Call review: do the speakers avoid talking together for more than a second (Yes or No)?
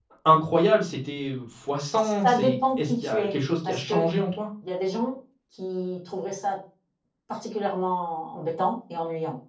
No